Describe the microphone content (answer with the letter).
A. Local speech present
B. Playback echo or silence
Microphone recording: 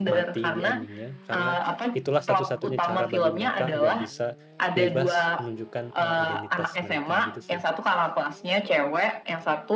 A